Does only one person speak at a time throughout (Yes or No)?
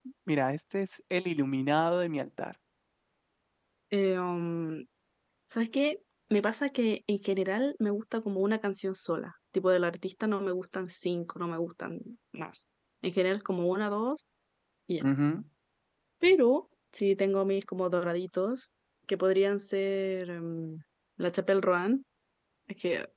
Yes